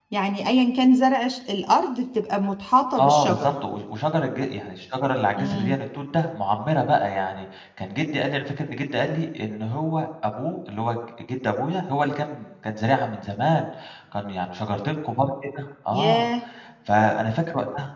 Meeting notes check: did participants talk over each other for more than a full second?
No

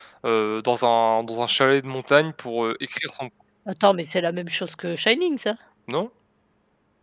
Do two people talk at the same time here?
No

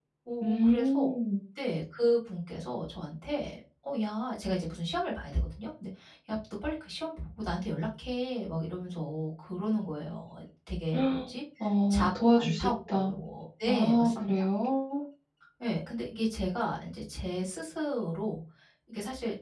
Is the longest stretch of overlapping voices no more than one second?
No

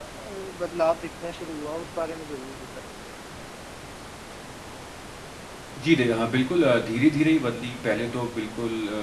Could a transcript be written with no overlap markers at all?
Yes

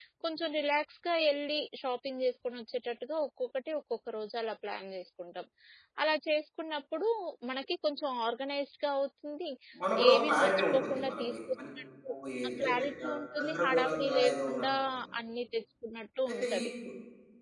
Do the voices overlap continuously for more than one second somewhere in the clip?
Yes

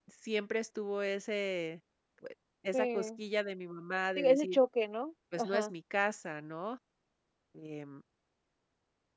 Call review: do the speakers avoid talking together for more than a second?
Yes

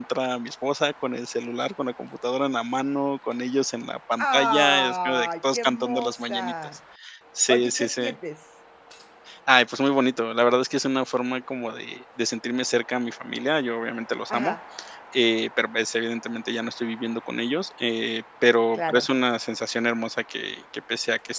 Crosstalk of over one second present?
Yes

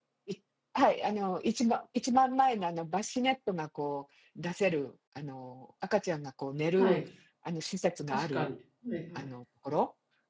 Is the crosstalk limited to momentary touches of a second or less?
Yes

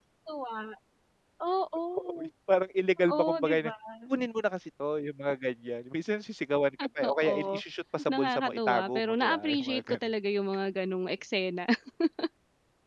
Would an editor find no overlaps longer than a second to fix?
No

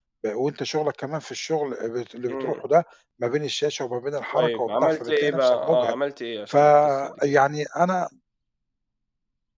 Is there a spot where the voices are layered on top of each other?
Yes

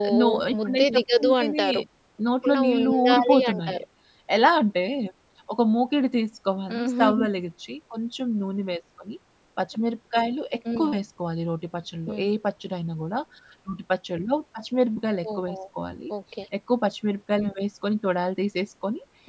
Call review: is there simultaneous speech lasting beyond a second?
Yes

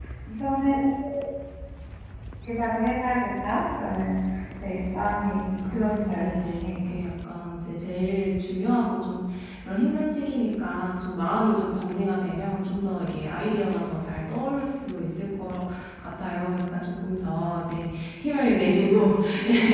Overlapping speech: Yes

